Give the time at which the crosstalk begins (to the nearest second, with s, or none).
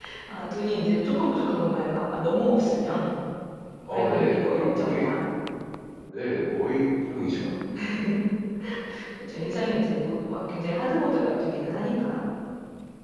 4 s